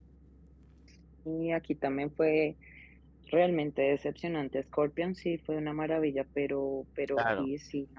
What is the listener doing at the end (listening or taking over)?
listening